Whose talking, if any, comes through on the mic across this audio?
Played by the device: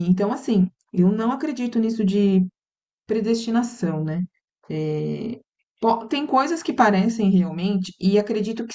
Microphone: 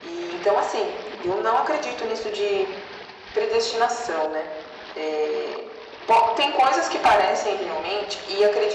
echo only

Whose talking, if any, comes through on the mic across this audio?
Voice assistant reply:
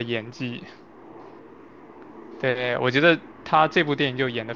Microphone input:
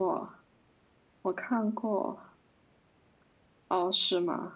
user only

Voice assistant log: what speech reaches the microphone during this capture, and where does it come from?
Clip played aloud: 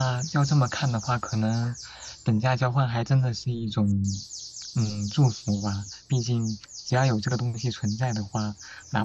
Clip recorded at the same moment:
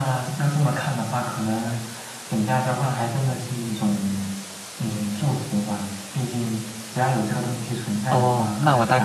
both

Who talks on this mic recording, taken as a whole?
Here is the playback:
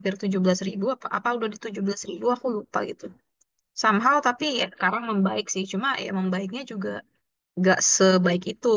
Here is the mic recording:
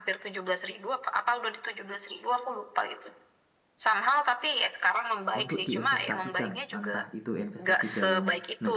both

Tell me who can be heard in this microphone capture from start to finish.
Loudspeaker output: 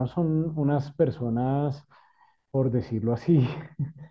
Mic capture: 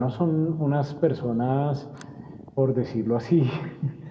echo only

